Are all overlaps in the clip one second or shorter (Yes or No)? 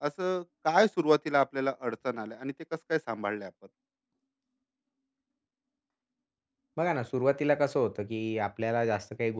Yes